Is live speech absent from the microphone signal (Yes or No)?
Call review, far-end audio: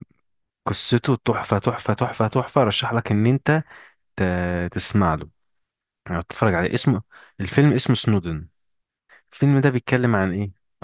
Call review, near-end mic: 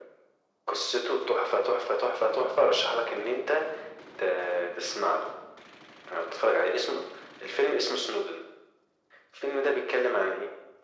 Yes